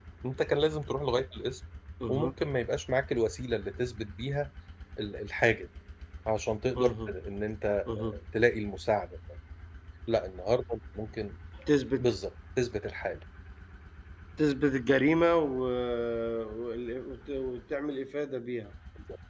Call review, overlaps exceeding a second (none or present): none